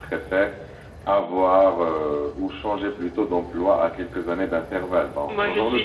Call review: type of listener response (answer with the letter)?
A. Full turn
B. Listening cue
A